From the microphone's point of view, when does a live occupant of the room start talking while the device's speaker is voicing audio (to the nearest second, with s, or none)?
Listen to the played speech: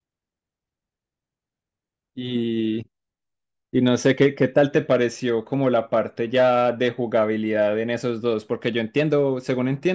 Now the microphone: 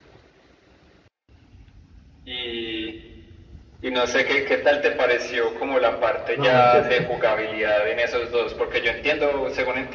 6 s